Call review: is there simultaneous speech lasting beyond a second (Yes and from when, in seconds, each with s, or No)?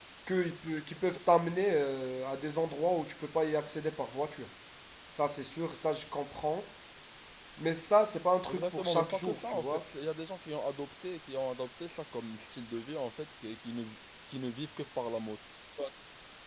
Yes, from 8.5 s